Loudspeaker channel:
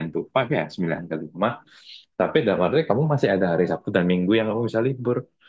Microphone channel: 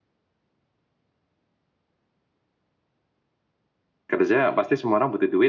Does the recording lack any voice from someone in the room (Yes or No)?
No